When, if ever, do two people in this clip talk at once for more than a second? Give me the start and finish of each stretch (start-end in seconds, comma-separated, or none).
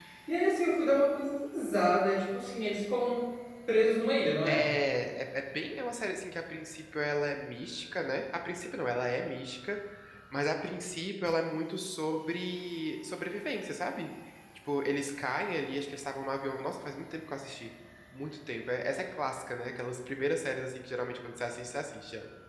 none